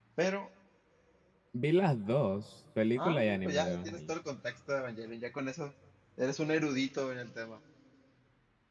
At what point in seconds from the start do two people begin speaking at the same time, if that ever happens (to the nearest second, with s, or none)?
3 s